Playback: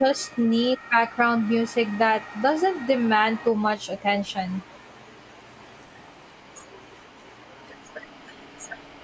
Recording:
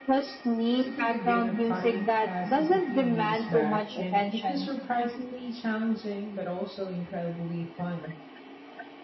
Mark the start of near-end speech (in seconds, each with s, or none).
0.8 s